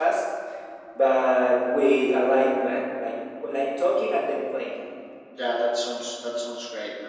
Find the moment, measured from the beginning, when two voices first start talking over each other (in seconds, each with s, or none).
none